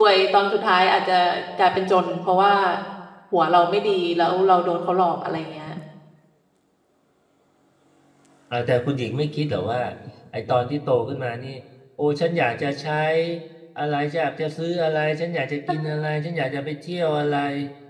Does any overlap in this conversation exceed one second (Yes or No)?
No